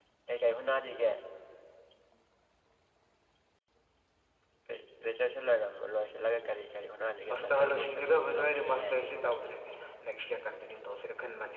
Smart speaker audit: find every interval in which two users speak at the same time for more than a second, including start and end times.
7.4-8.9

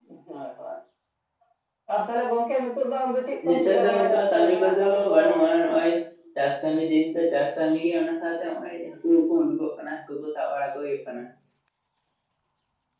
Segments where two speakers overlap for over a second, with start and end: 3.5-5.2

